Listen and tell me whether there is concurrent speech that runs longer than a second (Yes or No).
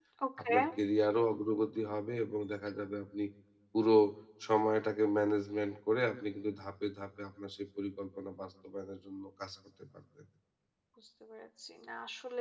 No